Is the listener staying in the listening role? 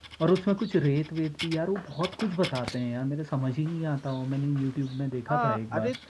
No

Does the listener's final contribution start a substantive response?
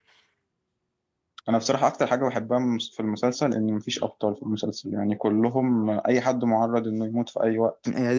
Yes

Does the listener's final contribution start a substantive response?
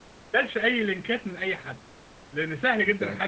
No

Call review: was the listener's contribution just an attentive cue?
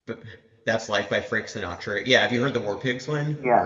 No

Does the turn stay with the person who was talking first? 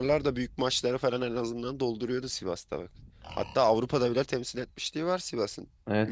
No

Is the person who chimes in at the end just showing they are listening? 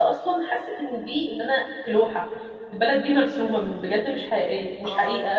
No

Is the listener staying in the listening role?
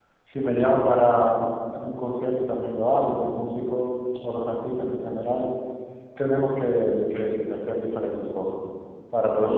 No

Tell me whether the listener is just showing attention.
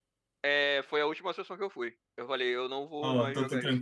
No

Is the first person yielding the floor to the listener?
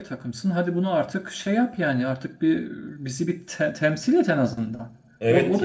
Yes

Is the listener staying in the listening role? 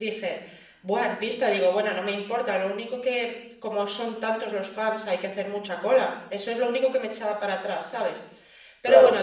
No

